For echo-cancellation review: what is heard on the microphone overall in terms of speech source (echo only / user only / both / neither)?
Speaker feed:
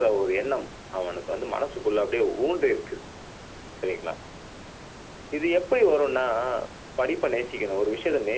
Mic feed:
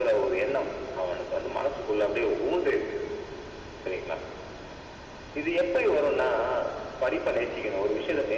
echo only